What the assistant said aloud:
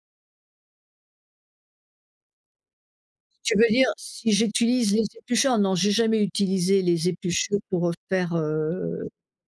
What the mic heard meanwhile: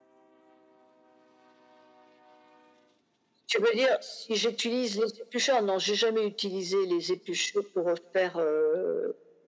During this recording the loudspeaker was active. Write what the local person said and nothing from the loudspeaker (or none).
none